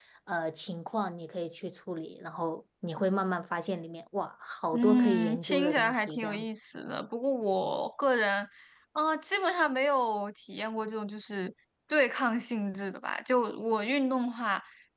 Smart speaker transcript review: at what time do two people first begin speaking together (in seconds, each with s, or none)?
4.7 s